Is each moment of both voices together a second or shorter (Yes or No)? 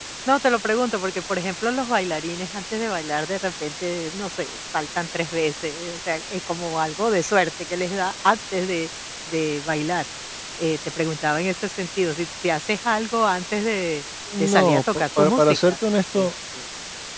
No